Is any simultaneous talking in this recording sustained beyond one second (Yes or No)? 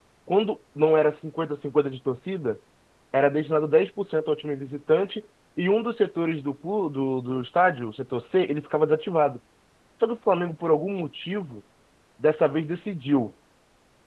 No